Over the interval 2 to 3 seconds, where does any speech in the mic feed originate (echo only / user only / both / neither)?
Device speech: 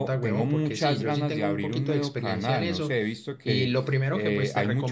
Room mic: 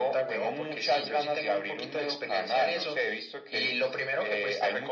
echo only